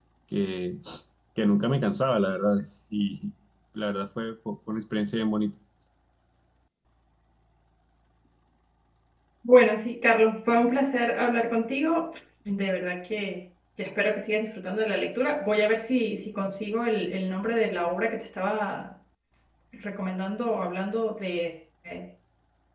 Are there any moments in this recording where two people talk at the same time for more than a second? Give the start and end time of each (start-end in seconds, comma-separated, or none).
none